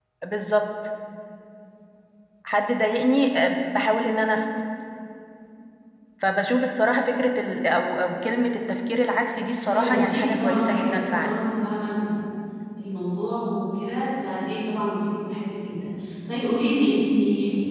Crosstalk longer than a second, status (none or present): present